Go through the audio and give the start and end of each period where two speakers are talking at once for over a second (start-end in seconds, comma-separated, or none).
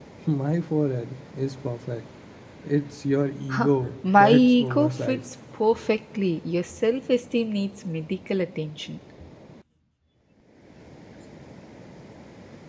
3.5-5.2